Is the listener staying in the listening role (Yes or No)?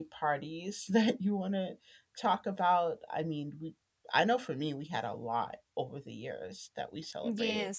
No